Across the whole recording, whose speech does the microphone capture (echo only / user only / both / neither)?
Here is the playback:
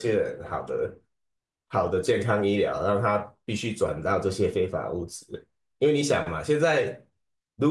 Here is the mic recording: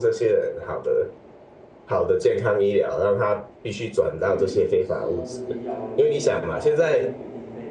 both